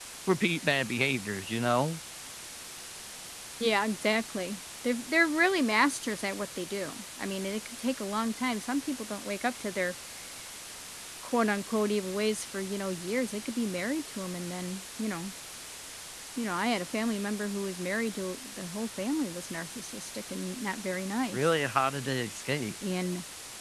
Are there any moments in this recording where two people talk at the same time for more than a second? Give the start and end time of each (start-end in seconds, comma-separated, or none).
none